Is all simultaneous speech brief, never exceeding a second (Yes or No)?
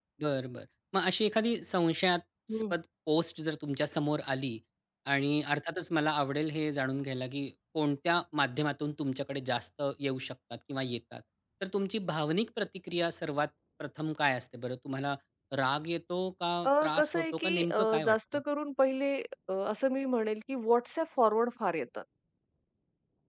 No